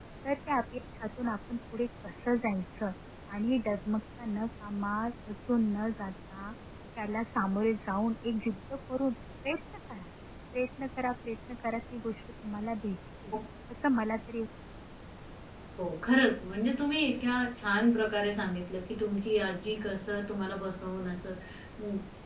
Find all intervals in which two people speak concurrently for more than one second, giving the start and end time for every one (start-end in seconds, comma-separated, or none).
none